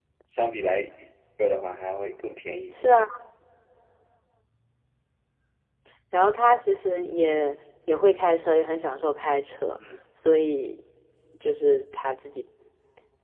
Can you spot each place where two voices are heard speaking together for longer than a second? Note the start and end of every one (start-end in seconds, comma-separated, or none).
none